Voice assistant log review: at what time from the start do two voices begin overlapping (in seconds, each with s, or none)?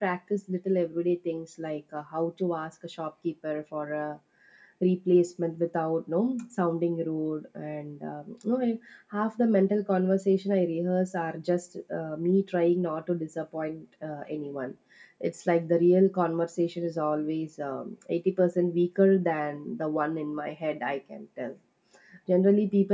none